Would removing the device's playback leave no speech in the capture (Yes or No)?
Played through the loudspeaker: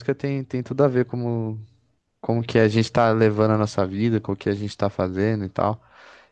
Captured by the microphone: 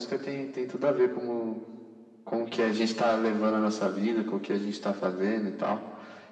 Yes